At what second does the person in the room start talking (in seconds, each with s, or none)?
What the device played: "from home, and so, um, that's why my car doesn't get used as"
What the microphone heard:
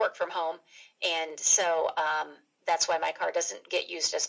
none